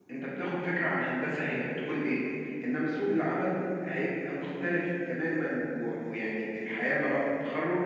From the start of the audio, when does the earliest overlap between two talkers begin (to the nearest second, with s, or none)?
none